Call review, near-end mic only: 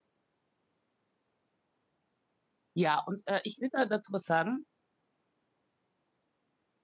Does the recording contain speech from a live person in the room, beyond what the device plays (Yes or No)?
Yes